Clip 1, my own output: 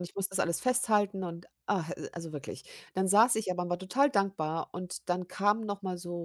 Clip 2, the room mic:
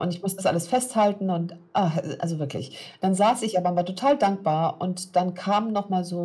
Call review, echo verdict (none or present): present